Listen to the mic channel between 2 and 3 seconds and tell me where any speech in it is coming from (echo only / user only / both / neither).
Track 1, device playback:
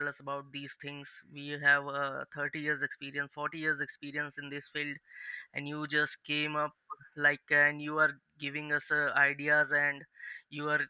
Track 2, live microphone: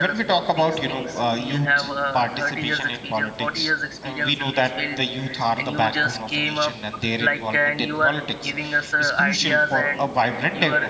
both